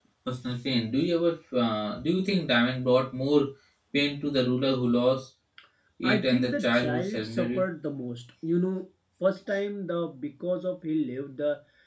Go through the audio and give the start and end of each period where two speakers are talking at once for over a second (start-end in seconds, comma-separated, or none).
6.0-7.7